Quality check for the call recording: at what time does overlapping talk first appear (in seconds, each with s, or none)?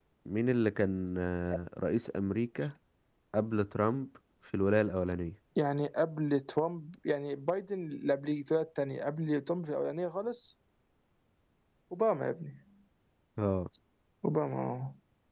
none